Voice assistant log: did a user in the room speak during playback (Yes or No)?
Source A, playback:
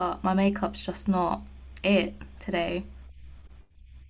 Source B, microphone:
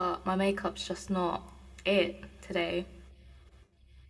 No